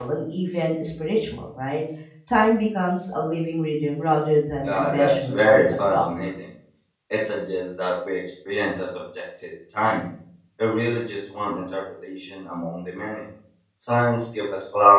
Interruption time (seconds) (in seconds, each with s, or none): 4.6 s